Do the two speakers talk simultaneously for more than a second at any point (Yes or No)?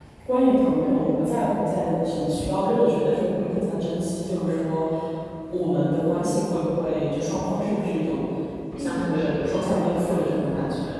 Yes